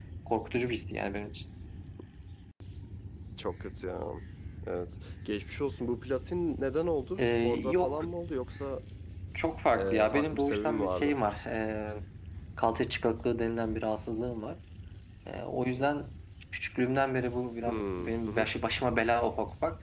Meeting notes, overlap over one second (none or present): present